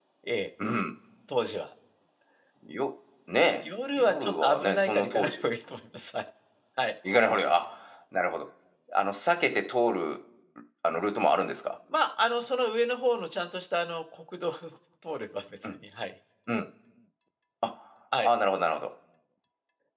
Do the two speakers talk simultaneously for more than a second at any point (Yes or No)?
Yes